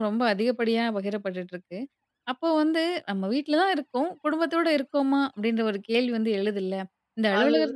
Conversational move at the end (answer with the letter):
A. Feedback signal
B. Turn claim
A